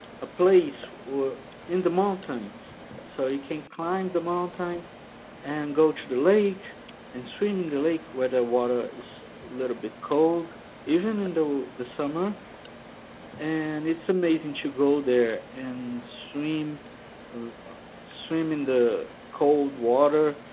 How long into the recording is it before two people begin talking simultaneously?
none

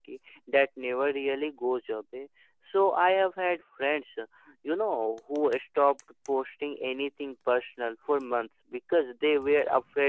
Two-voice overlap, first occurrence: none

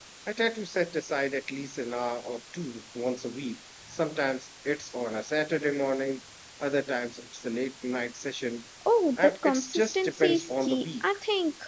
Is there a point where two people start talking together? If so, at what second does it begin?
9.2 s

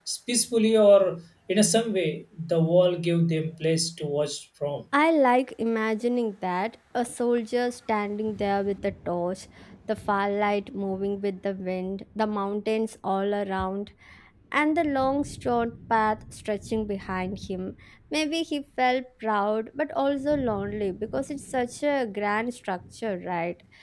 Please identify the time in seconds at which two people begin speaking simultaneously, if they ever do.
none

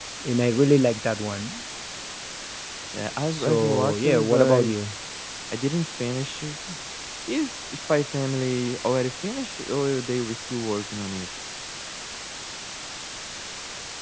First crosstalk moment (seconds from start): 3.3 s

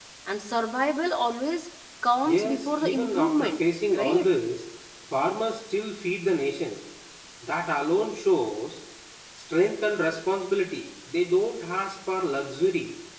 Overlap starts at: 2.3 s

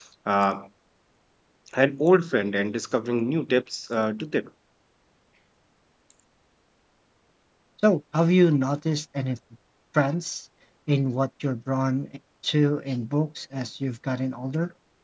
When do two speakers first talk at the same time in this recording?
none

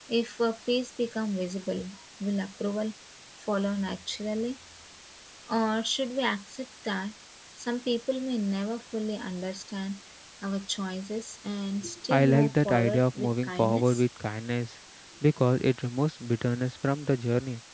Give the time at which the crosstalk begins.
12.1 s

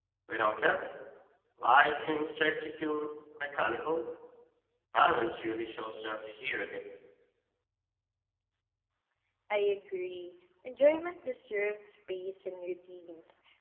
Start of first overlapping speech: none

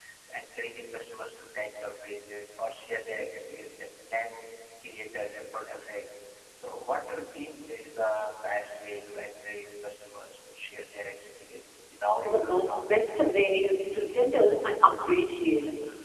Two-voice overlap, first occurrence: 12.2 s

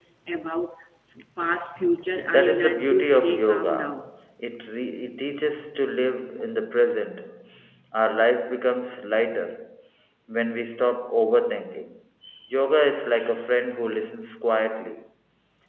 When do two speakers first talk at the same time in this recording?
2.3 s

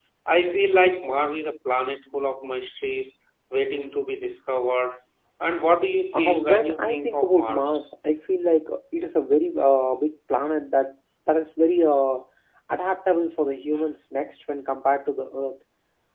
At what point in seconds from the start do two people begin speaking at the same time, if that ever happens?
6.1 s

